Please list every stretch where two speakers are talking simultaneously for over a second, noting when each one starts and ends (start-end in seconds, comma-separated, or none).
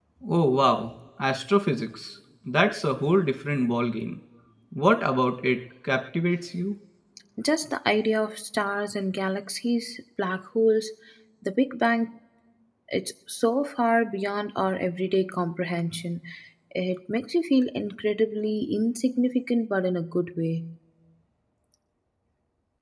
none